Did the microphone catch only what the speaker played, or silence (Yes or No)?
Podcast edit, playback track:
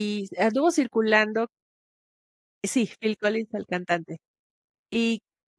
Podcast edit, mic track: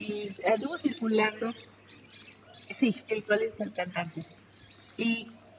Yes